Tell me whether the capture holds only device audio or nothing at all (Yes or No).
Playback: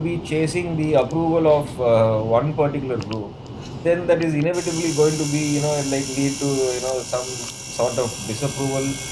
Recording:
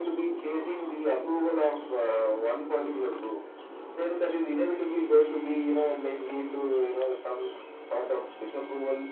Yes